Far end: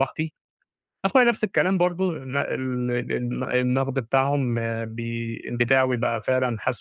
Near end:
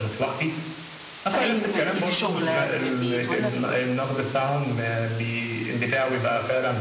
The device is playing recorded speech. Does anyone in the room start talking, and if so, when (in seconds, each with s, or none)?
1.3 s